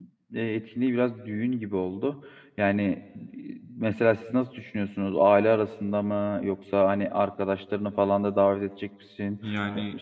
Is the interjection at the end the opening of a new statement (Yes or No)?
No